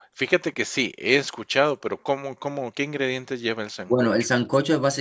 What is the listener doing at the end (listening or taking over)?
taking over